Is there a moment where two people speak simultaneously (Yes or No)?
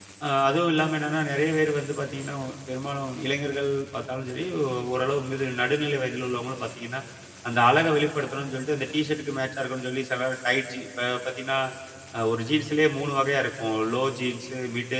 No